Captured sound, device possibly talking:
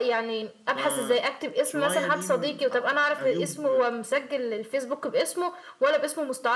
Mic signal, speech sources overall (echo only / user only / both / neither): both